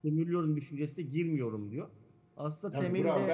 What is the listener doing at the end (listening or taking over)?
taking over